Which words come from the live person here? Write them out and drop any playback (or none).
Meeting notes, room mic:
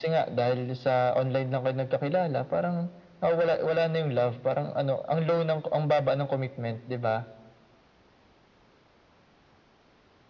none